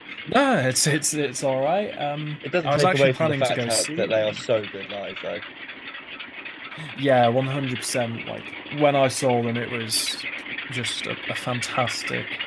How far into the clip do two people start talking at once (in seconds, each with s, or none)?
2.4 s